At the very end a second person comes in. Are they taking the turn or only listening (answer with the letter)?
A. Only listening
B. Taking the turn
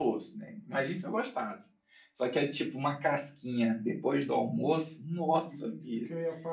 B